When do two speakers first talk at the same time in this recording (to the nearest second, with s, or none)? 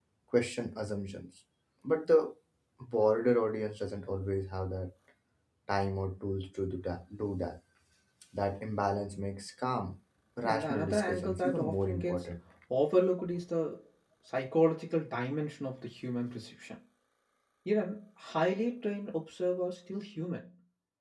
10 s